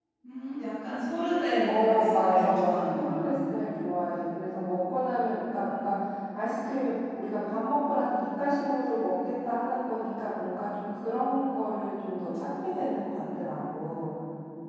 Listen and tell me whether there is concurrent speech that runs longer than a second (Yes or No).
Yes